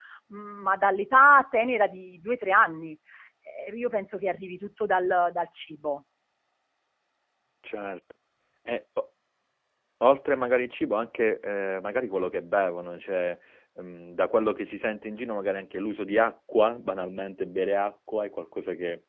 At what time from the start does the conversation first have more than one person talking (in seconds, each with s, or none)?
none